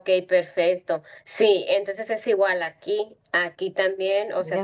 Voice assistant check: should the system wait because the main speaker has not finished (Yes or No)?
Yes